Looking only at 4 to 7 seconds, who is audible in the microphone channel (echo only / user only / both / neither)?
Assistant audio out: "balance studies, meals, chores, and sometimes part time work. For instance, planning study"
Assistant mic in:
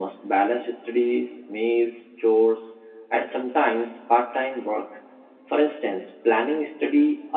echo only